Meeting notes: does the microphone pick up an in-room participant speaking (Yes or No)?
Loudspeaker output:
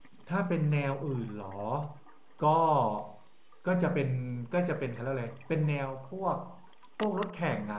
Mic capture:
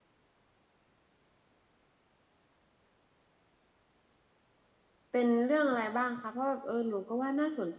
Yes